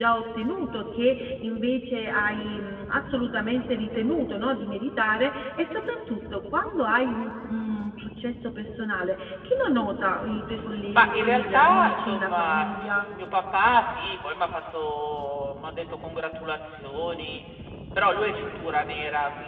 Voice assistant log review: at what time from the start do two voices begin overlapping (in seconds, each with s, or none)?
10.9 s